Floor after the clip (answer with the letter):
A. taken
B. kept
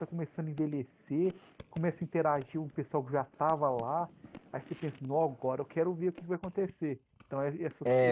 B